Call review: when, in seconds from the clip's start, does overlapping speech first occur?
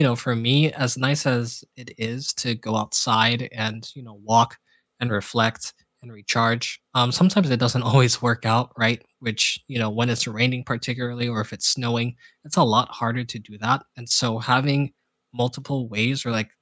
none

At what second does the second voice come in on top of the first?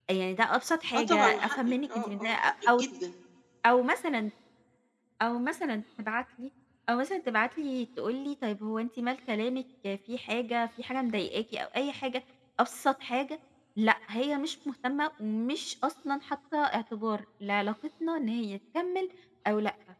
0.9 s

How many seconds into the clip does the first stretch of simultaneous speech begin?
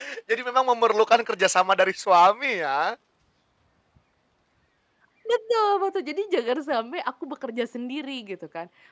none

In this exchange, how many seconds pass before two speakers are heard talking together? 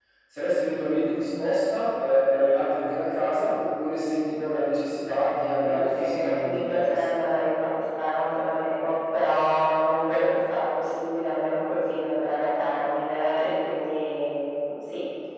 5.6 s

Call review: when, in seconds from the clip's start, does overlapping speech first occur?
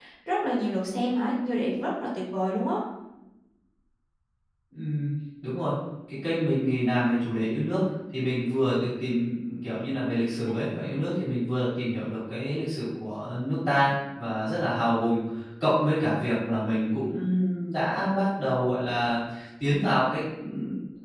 none

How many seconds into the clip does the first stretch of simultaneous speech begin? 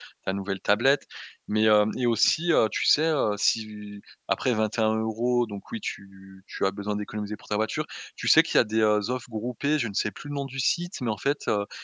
none

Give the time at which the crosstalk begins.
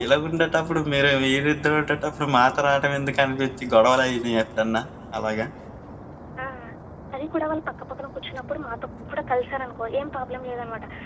none

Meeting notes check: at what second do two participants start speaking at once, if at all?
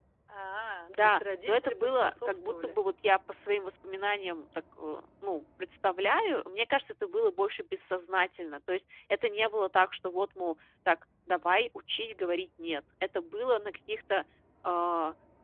0.9 s

